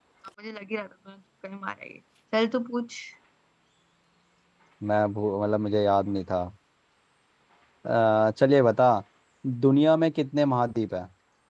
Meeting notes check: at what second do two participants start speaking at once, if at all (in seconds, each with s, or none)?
none